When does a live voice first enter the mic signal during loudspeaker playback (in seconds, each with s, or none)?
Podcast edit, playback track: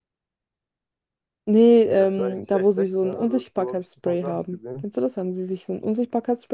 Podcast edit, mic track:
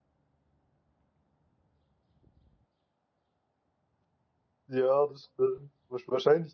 4.7 s